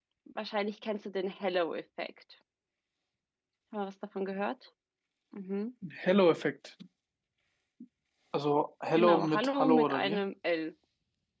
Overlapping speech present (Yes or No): Yes